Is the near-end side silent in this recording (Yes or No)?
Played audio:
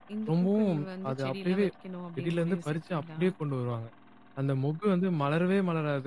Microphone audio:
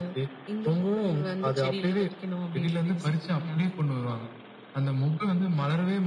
Yes